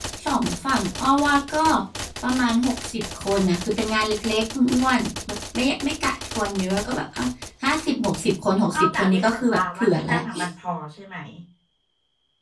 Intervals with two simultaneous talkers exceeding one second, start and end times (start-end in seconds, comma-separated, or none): 8.6-10.2